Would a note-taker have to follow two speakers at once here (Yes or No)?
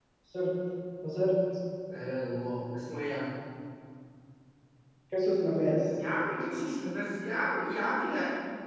No